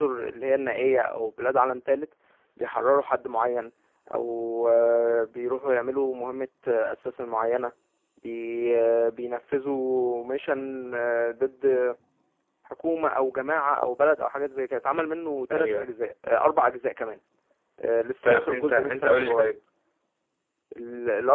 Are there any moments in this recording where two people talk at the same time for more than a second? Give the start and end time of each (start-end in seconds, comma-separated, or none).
18.2-19.5